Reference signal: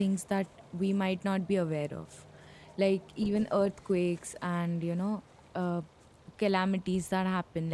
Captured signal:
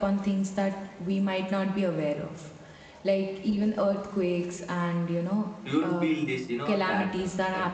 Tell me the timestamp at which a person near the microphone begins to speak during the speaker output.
6 s

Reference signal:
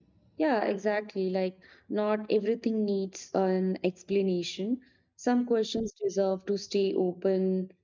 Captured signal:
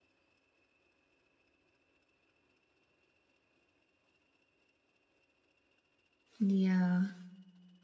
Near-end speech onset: 6 s

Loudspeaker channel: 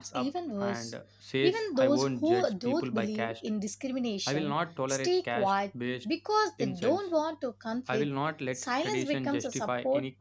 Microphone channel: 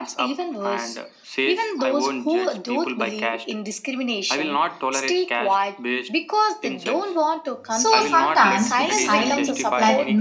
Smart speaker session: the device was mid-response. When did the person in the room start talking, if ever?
8 s

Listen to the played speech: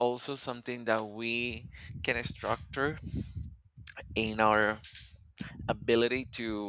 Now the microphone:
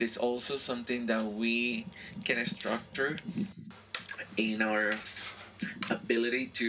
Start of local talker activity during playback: none

